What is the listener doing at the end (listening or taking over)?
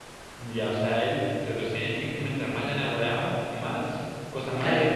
taking over